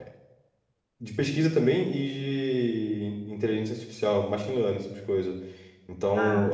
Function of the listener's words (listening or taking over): listening